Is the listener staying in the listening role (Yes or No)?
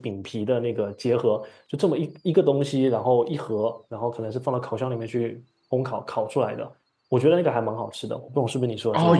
No